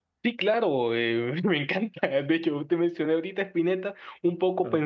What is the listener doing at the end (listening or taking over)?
listening